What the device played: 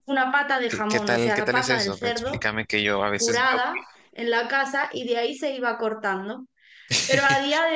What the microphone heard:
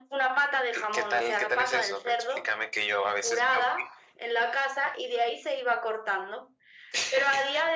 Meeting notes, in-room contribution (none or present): none